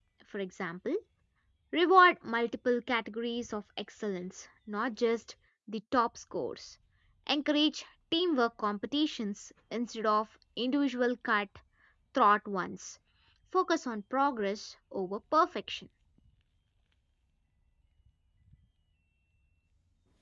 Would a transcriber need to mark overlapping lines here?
No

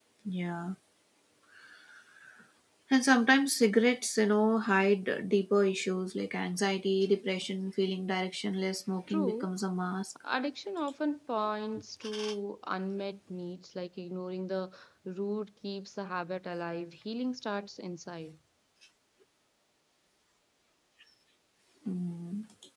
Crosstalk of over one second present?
No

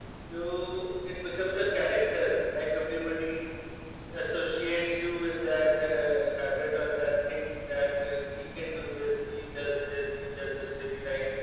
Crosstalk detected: No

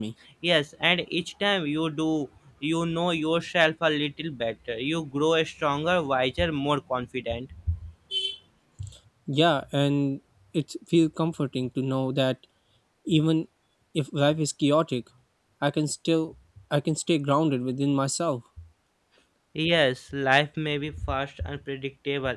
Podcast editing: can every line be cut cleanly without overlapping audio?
Yes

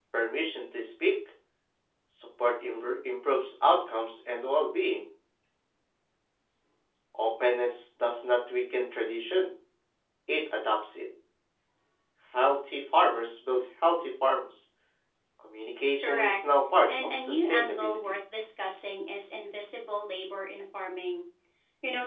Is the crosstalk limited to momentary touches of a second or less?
No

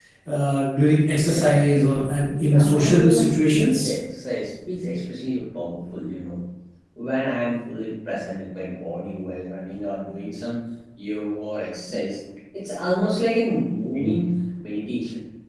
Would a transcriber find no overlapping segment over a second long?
No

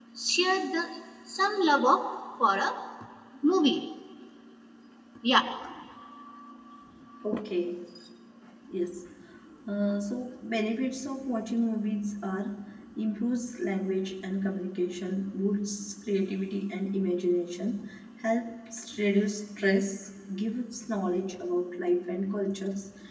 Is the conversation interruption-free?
Yes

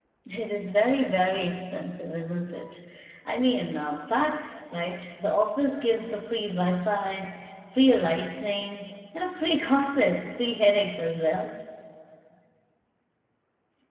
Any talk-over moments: No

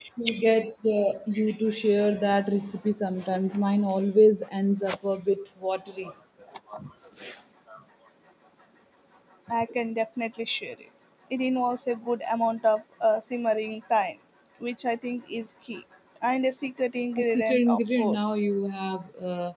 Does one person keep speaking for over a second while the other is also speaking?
Yes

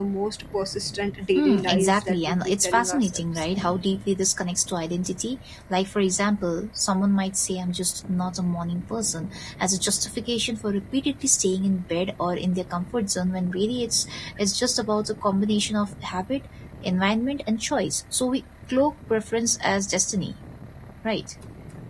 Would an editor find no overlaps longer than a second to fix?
No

